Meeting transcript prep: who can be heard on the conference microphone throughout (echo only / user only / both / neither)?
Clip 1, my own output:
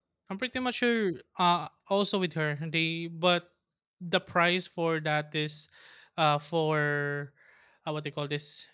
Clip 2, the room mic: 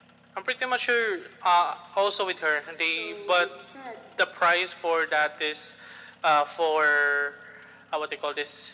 both